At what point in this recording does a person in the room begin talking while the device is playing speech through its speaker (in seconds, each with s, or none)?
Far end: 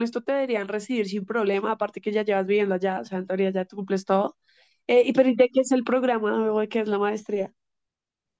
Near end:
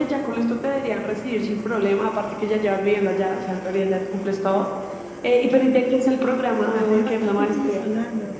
6.7 s